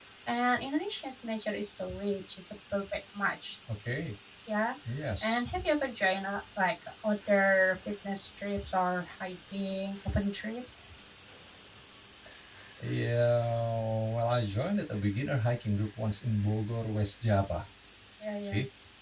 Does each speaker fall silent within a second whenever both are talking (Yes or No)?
Yes